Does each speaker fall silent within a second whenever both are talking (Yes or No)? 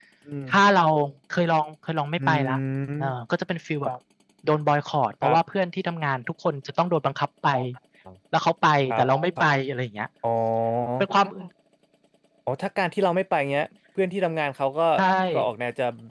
Yes